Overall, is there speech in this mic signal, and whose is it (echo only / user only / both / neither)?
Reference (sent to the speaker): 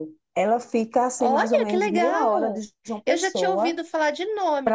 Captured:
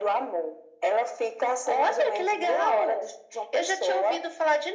echo only